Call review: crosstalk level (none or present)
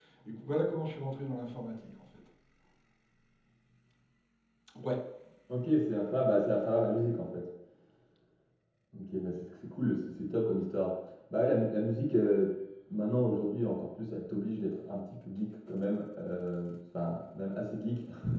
none